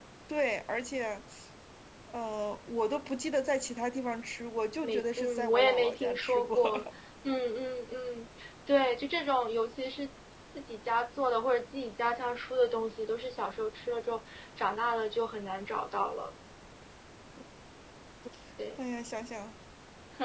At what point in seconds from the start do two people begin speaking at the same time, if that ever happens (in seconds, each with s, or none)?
4.8 s